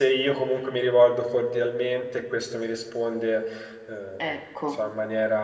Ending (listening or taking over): listening